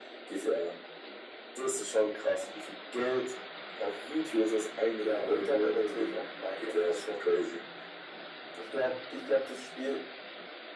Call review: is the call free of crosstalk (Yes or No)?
No